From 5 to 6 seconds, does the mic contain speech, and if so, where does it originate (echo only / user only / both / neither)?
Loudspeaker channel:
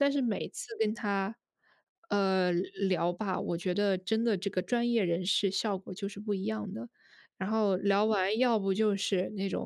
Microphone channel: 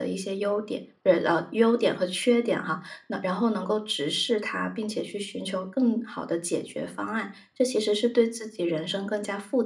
user only